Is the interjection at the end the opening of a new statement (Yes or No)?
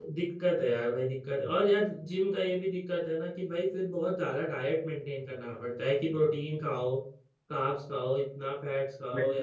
Yes